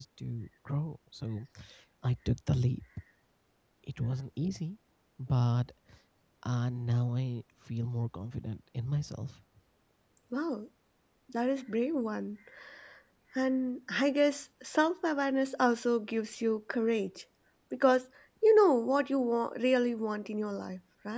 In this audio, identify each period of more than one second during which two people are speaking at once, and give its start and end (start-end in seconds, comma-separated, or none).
none